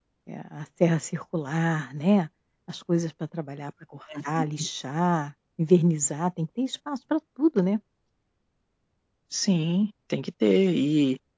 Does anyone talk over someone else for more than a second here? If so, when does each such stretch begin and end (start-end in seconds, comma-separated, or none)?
none